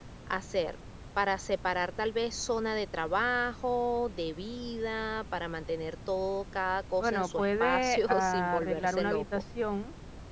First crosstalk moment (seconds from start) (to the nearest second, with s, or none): 7 s